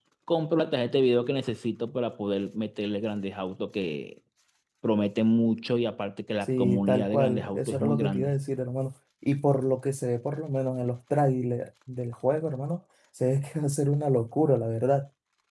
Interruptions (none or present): present